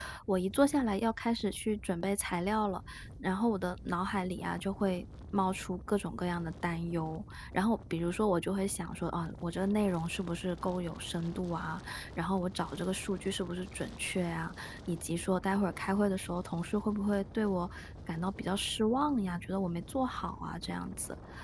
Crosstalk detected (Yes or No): No